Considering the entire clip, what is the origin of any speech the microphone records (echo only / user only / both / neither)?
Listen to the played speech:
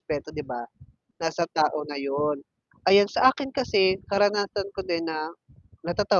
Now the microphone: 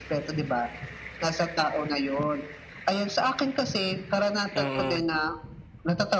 both